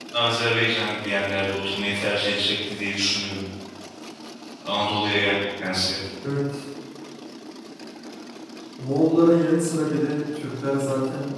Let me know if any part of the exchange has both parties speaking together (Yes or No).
No